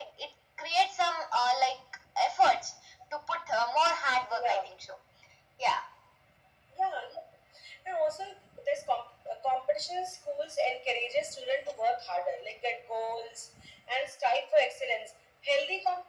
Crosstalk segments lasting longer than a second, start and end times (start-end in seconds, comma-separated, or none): none